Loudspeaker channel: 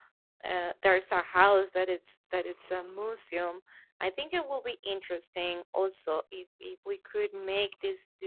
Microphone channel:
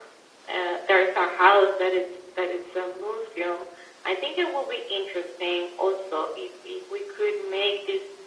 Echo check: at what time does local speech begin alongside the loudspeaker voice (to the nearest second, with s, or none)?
none